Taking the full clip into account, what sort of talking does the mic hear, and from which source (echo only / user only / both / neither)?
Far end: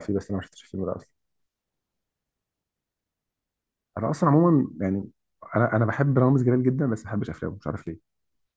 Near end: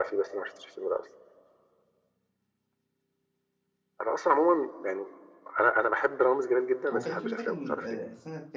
both